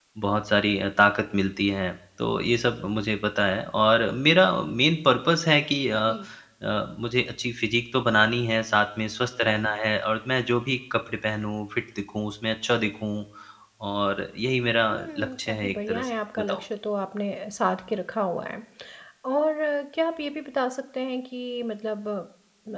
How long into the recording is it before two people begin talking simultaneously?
14.9 s

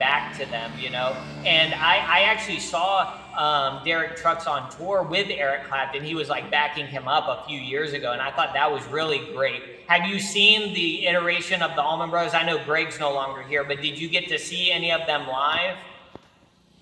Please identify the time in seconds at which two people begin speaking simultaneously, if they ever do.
none

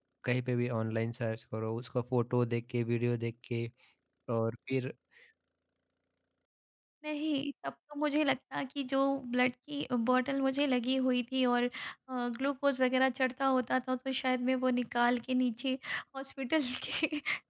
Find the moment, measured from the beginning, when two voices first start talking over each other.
none

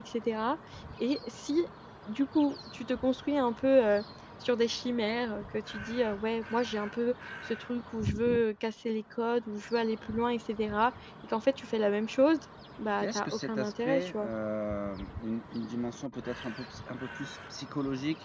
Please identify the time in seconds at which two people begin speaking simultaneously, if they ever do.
13.0 s

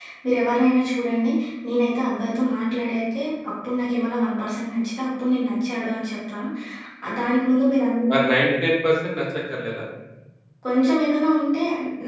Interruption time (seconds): none

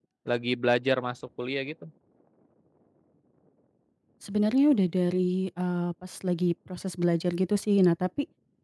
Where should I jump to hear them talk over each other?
none

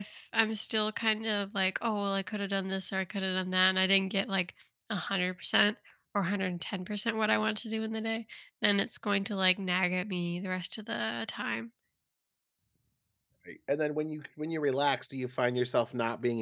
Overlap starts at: none

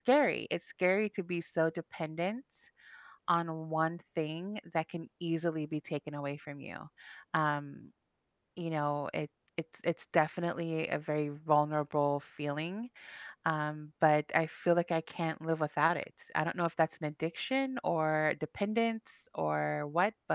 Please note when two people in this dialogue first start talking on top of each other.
none

